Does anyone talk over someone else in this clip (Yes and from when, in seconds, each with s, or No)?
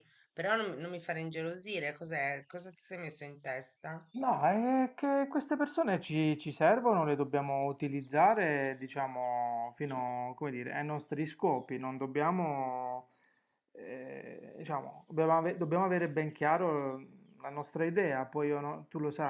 No